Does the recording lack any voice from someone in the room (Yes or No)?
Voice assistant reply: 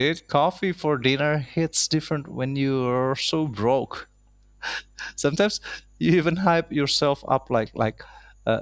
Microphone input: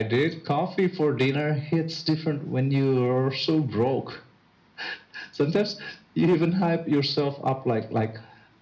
Yes